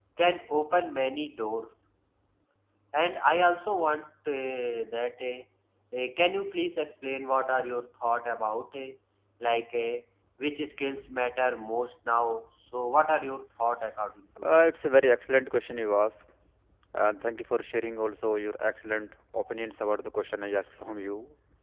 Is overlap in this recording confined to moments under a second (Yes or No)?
Yes